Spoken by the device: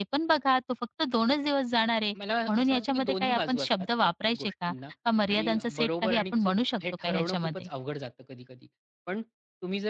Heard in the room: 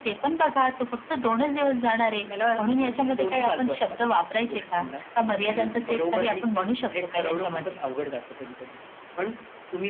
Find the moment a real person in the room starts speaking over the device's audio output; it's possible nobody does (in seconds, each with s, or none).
none